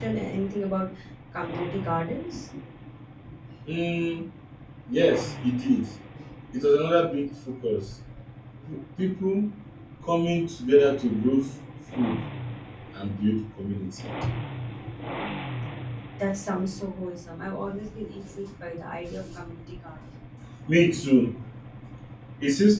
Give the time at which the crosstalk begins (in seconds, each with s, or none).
none